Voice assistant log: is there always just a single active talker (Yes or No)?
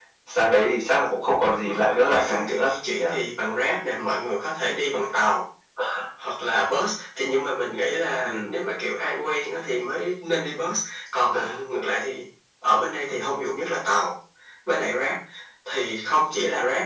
No